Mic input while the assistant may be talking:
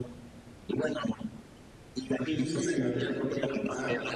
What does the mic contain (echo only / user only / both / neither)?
both